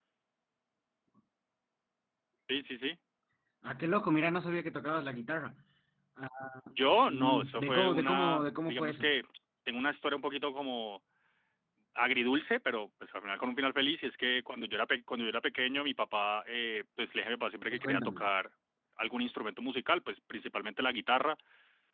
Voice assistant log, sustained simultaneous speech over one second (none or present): present